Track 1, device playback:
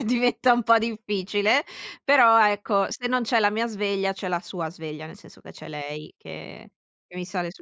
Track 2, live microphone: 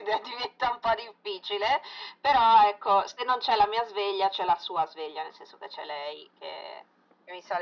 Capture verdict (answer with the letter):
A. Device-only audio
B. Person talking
A